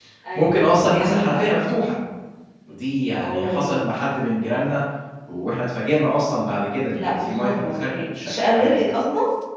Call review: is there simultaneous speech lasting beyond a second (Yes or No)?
Yes